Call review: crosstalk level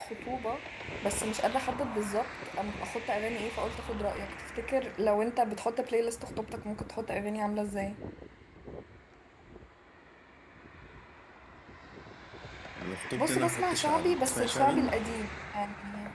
present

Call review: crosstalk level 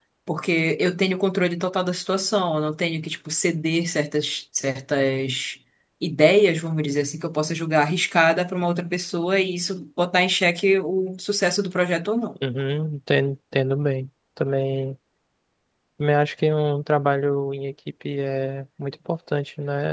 none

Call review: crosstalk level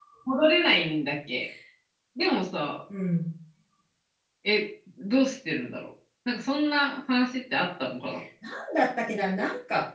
none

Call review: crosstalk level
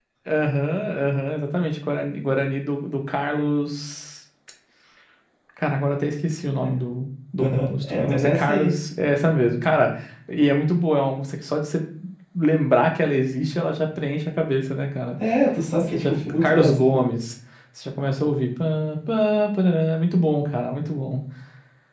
present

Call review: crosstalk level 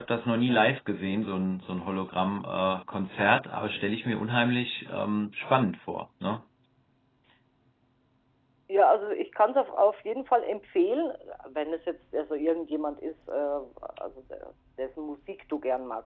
none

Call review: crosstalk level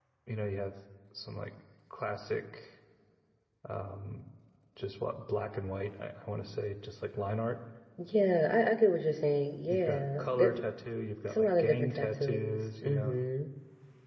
present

